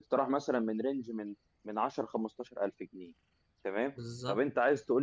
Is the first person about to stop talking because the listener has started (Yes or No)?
No